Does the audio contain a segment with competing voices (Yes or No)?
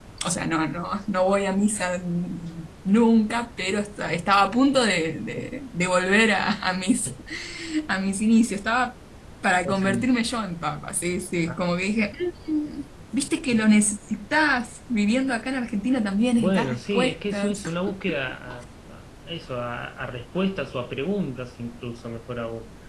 Yes